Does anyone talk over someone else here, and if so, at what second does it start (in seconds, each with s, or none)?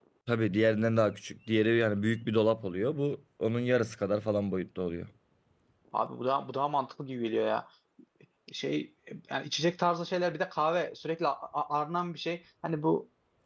none